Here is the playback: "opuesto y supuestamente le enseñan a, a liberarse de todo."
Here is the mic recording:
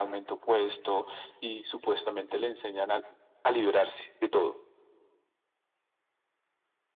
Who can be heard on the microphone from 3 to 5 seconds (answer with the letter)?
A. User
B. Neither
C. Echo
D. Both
C